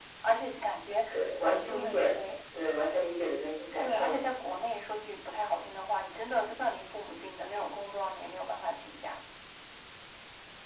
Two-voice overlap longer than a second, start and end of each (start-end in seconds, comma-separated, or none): none